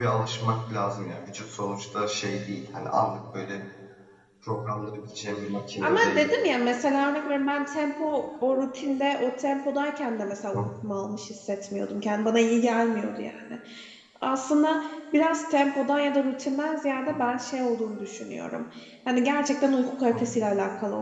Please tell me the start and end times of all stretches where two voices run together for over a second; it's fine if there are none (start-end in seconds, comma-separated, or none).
none